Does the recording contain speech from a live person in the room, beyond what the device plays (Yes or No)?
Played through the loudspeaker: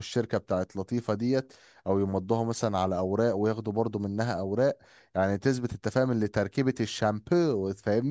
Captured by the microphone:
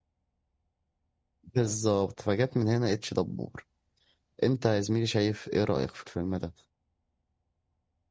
Yes